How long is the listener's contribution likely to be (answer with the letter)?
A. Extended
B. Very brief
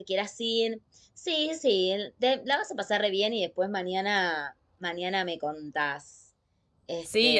A